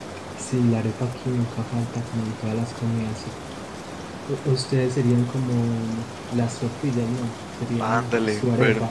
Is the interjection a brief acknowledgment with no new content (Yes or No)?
No